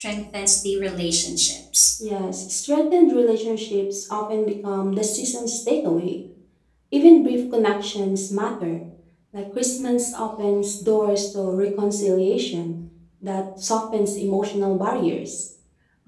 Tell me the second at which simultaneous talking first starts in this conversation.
none

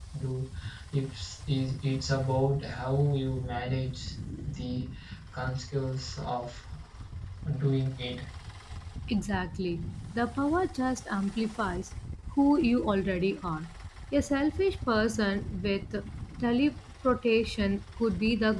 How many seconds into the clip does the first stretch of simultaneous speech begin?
none

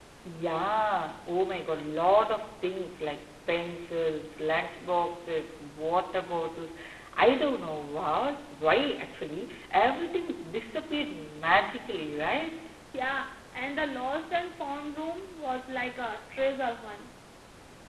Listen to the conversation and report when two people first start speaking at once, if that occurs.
none

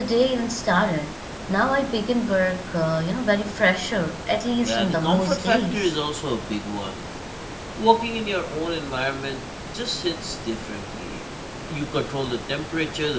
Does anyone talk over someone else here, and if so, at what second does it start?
4.6 s

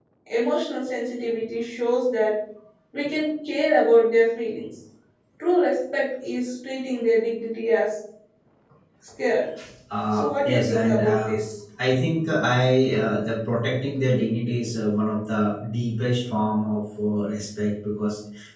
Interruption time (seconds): 10.1 s

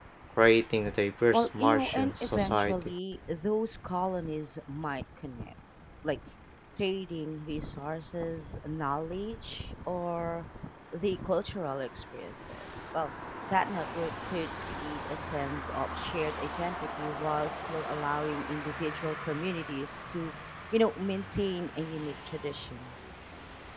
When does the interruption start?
1.3 s

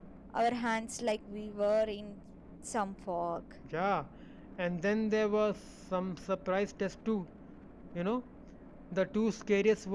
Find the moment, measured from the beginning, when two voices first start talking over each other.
none

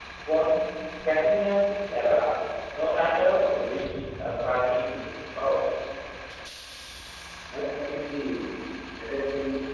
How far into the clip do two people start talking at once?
none

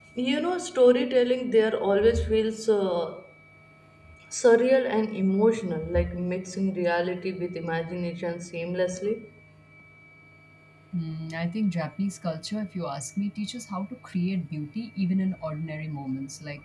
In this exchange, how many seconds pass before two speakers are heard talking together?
none

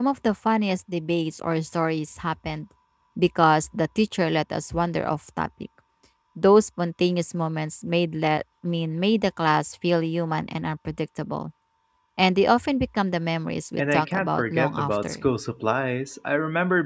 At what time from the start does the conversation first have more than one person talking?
13.8 s

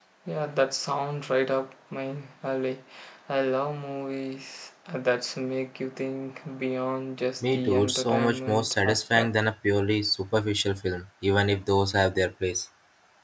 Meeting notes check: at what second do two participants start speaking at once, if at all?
7.4 s

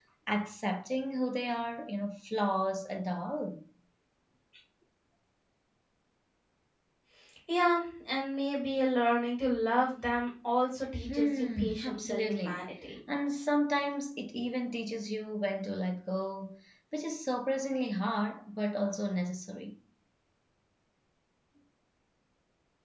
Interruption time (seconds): 11.1 s

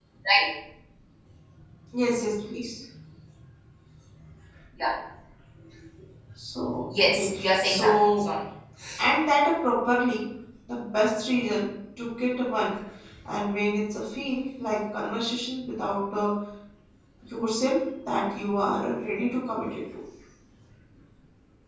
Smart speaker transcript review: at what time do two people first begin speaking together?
7.0 s

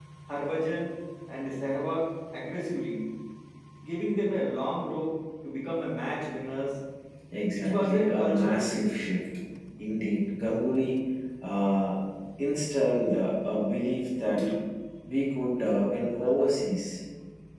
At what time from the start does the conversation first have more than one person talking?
7.5 s

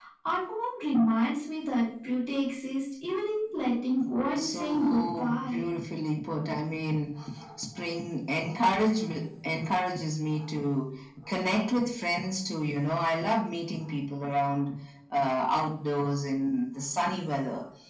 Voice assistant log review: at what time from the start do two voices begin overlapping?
4.3 s

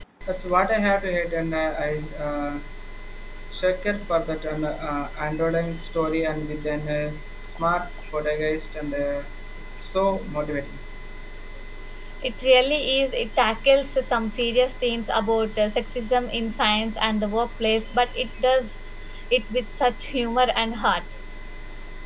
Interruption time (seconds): none

